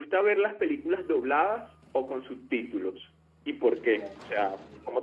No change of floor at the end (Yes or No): No